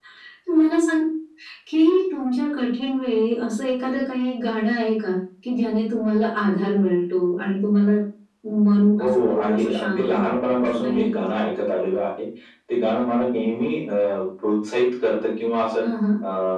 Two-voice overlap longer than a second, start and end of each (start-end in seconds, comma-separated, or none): 9.0-11.2